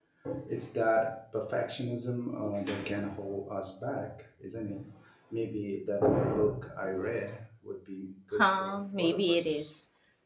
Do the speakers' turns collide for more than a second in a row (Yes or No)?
Yes